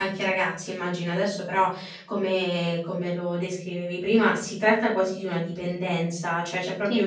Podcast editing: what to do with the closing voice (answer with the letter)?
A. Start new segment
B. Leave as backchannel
B